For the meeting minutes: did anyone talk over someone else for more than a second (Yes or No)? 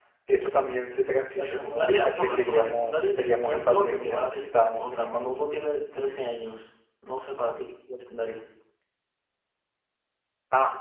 Yes